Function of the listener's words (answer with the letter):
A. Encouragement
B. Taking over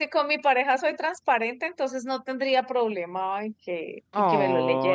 B